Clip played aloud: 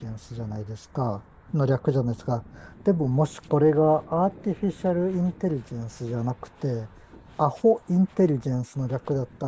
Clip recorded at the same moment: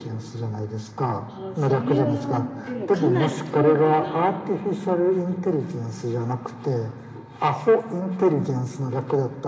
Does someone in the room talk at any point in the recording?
Yes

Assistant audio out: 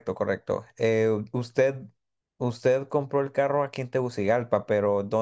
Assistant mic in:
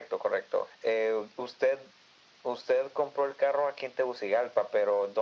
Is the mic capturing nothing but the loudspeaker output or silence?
Yes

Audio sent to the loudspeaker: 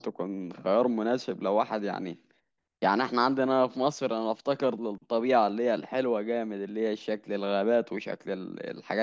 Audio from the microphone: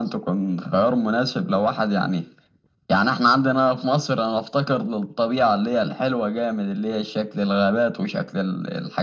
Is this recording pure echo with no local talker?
Yes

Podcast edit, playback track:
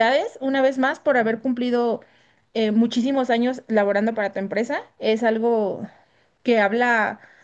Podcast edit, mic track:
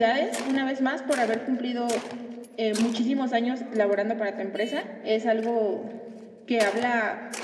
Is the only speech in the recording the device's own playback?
Yes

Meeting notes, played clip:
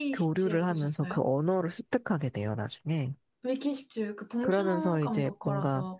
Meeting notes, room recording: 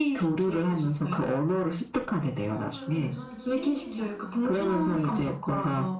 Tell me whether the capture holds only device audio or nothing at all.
No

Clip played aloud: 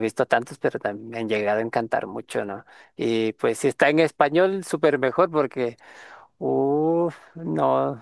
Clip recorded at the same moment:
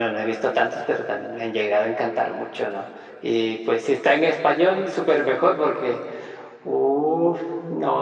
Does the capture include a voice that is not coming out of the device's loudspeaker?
No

